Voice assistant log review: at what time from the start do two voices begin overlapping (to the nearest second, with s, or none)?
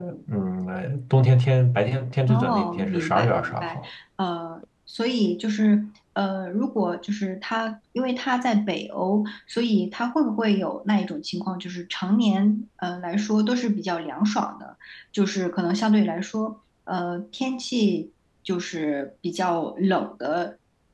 2 s